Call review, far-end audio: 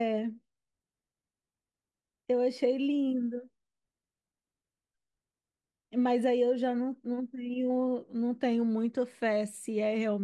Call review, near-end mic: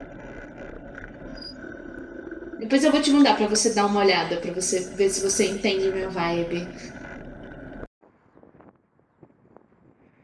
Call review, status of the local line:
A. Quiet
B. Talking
B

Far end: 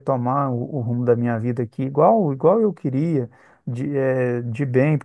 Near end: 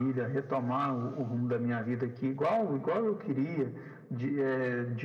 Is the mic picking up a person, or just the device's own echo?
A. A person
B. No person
B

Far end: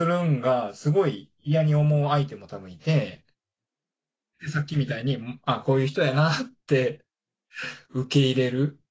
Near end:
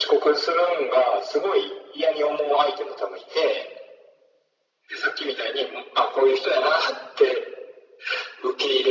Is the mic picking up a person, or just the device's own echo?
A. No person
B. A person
A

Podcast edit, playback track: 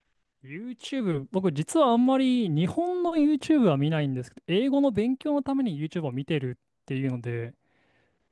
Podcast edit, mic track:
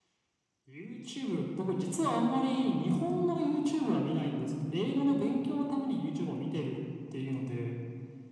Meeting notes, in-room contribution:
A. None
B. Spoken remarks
A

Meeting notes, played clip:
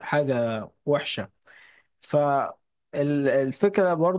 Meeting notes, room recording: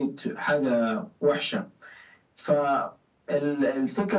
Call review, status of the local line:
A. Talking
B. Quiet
B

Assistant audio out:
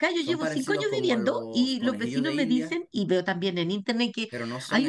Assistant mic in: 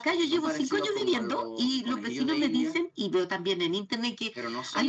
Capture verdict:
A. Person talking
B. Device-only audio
B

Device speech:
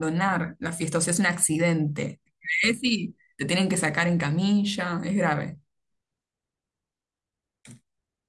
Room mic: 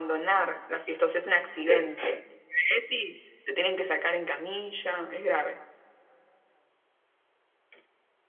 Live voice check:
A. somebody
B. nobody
A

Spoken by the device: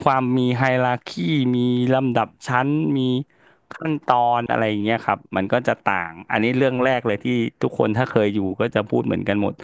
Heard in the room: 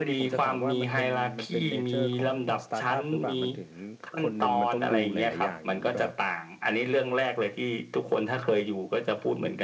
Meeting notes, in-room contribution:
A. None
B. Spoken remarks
B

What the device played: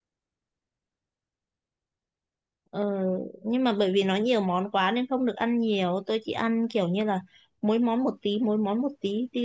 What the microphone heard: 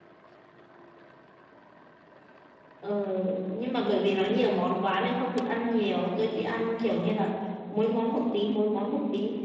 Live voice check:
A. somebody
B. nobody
B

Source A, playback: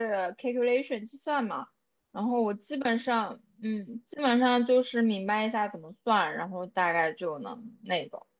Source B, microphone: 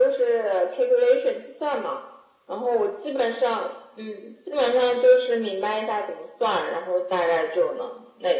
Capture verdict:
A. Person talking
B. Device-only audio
B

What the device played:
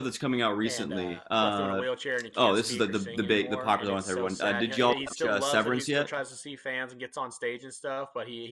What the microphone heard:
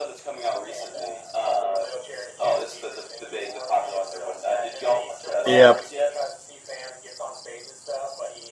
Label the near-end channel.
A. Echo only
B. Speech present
B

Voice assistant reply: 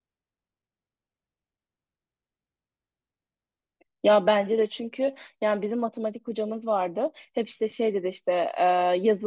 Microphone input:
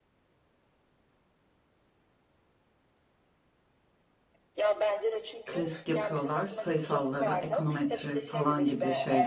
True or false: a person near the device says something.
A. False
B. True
B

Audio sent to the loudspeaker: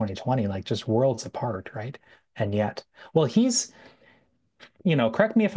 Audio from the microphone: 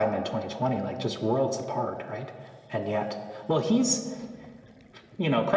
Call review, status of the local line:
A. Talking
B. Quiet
B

